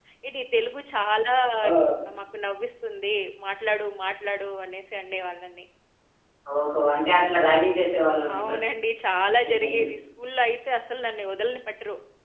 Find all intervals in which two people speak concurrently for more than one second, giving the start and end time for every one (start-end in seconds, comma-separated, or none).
none